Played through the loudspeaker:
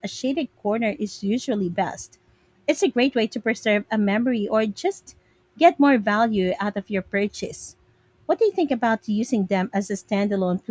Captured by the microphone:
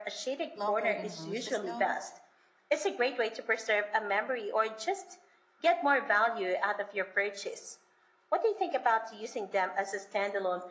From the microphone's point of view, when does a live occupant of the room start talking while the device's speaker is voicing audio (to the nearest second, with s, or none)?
1 s